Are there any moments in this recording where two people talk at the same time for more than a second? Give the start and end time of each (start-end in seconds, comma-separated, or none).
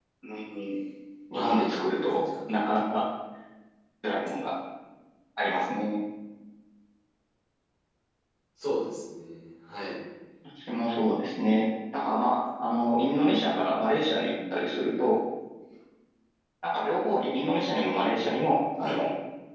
1.3-2.6